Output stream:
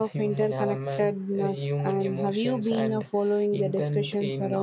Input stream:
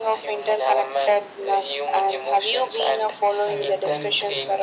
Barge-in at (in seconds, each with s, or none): 3.5 s